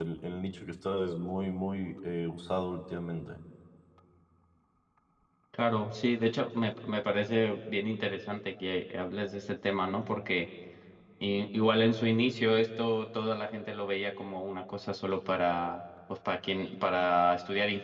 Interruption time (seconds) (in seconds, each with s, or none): none